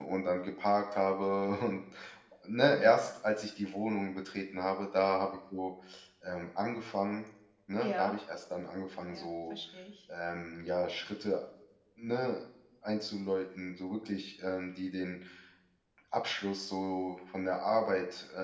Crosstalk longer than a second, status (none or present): none